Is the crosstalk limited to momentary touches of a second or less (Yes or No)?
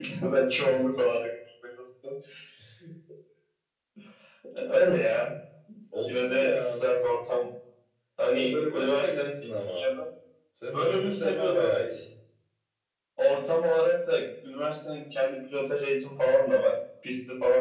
No